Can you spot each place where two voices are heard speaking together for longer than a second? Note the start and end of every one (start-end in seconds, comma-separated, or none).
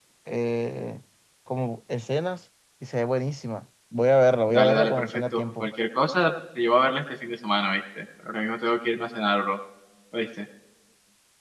4.5-5.7